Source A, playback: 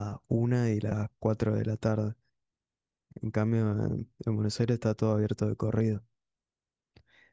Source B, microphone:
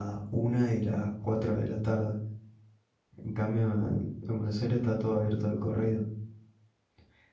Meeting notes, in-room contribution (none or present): none